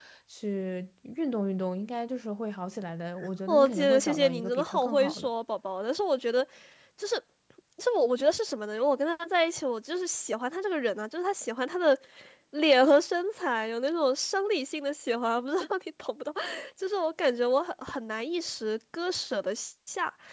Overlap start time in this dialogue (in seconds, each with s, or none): 3.5 s